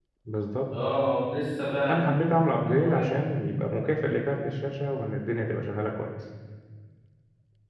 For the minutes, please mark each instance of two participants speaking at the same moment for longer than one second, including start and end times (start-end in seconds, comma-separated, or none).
none